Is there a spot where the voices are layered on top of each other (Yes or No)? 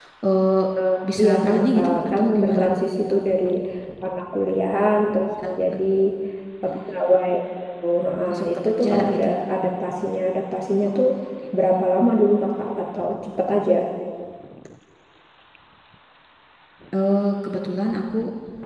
Yes